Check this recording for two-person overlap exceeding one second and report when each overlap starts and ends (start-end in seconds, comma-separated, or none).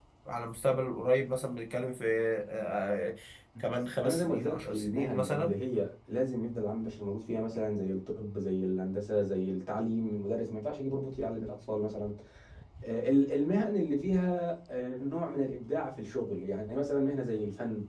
4.0-5.5